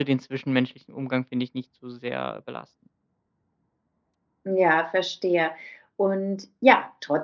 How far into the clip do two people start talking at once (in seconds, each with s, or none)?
none